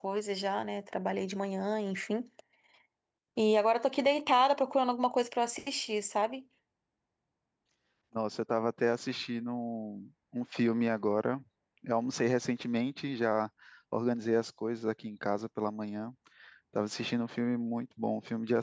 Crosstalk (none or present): none